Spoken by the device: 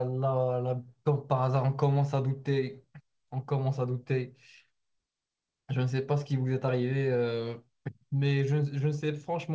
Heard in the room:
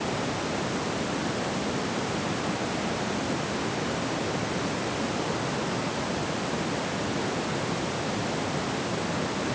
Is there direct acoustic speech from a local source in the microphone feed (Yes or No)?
No